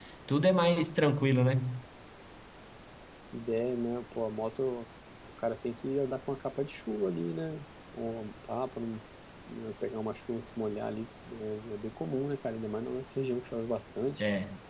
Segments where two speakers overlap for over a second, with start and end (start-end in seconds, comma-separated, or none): none